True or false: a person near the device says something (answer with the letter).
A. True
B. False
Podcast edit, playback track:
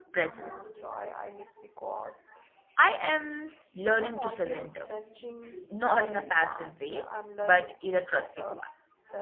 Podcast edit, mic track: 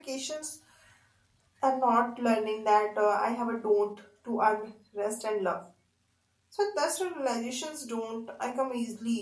A